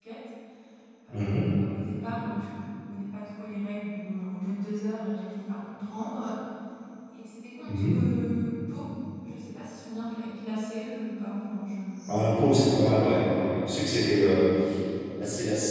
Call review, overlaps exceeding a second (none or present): none